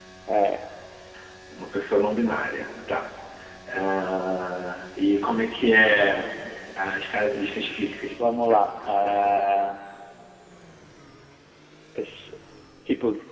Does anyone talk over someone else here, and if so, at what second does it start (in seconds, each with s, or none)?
8.2 s